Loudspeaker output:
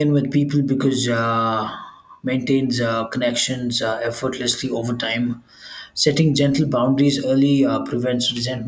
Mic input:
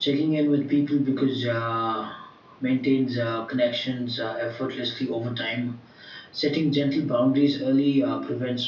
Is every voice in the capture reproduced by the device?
Yes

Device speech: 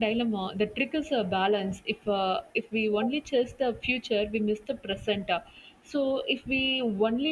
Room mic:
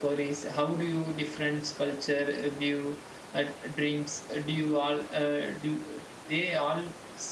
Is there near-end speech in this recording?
Yes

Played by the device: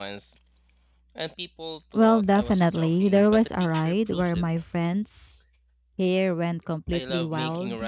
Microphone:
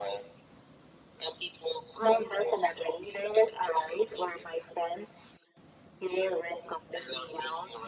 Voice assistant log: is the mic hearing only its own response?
Yes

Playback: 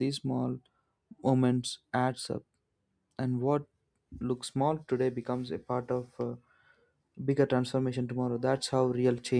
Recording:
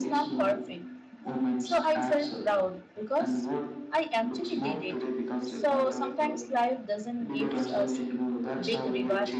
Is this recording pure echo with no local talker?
No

